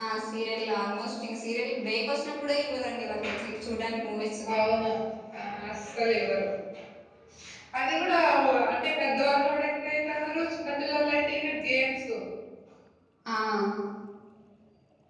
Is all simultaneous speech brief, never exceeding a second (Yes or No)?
Yes